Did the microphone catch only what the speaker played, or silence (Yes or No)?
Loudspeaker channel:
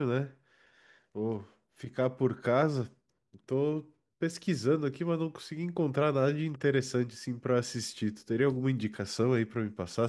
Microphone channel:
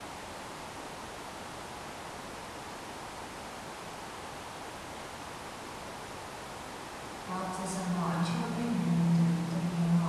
No